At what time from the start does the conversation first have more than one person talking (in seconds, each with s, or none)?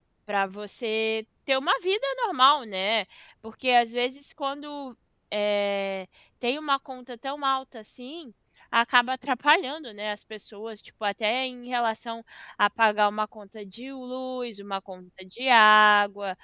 none